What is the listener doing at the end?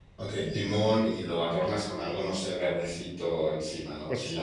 taking over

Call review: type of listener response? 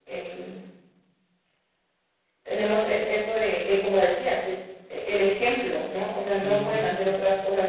listening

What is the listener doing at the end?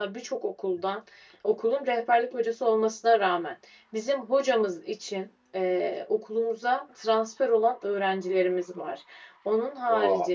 listening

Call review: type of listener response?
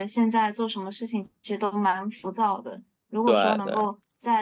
listening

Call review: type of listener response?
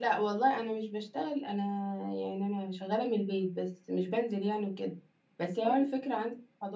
listening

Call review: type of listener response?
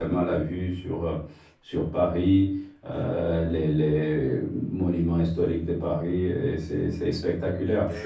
taking over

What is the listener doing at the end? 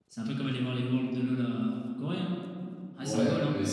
taking over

